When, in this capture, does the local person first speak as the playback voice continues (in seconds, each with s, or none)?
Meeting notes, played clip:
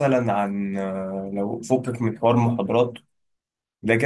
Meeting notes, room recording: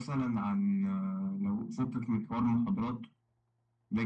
none